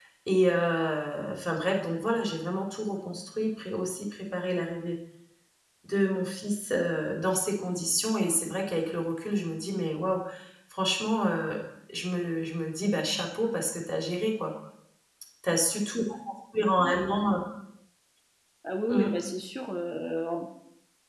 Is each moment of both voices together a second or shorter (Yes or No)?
Yes